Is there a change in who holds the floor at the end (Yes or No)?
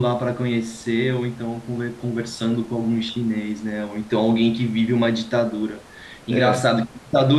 No